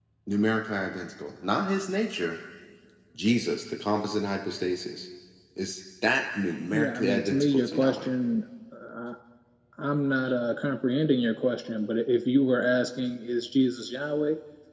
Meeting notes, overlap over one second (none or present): present